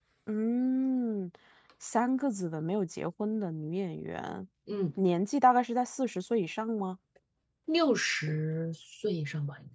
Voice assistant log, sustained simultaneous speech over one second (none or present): none